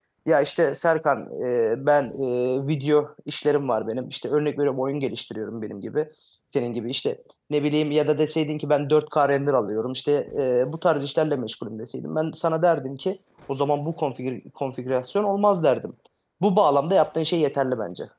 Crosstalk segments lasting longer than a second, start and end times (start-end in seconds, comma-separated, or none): none